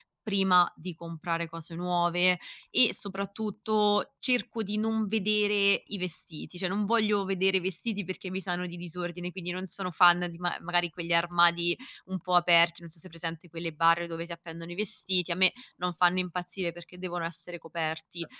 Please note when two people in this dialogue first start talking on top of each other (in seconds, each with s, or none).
none